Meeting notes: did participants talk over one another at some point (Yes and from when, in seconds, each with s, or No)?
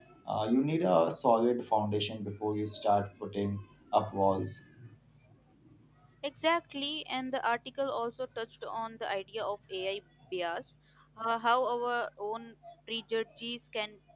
No